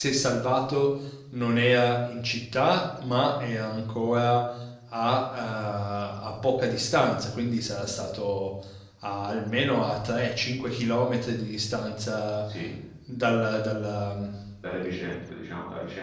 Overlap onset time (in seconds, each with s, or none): none